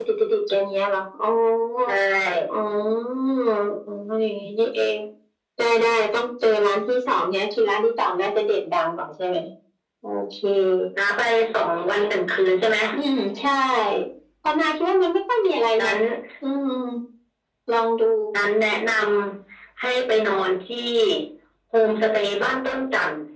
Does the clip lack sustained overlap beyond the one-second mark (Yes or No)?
Yes